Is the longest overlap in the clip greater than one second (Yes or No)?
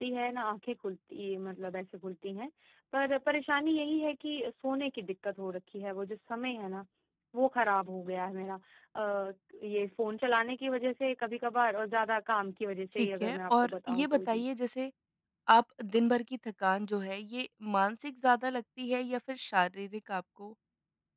Yes